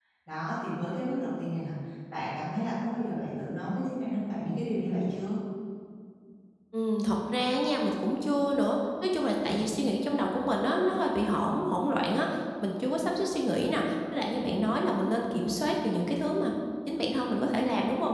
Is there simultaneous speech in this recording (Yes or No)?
No